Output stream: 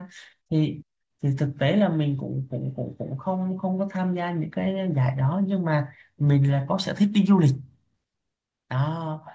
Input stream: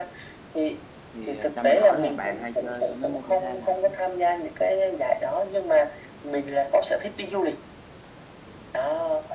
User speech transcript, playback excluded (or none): Thì ờ, cho mình hỏi là bạn hay chơi ờ, mấy môn thể thao nào